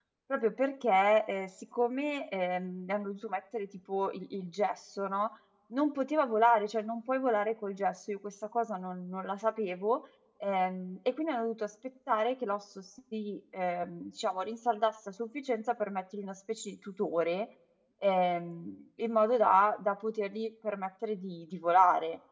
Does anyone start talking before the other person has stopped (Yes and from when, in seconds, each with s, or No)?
No